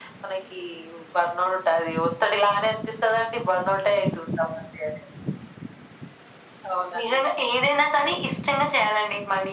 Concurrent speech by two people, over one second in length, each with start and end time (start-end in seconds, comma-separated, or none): none